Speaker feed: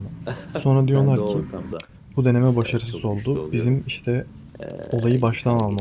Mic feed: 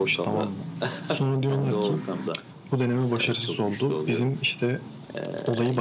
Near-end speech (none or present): none